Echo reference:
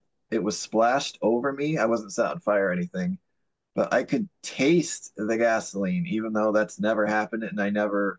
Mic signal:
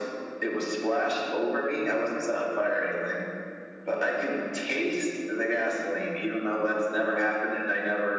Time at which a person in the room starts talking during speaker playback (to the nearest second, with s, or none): none